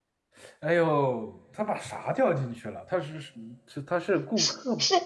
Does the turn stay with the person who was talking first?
No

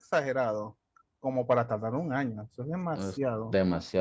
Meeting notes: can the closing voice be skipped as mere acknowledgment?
No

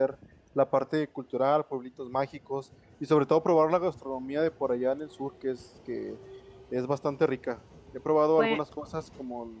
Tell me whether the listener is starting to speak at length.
No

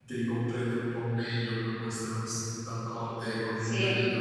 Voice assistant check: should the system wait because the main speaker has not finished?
Yes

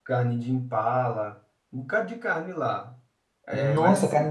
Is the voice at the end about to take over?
Yes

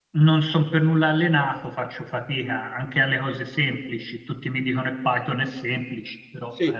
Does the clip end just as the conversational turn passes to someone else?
Yes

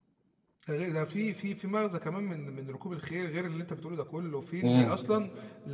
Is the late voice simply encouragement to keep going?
Yes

